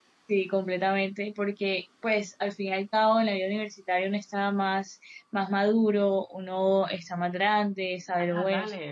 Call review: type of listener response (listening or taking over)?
taking over